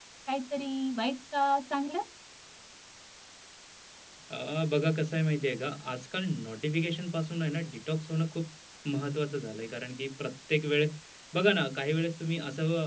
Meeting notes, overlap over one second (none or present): none